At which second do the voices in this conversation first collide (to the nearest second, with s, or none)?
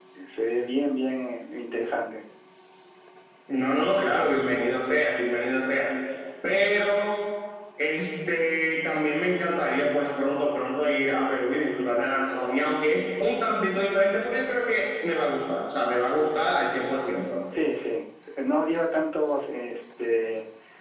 none